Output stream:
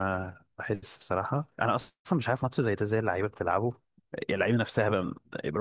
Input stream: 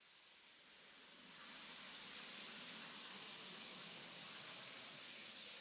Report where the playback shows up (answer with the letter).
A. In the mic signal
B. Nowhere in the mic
B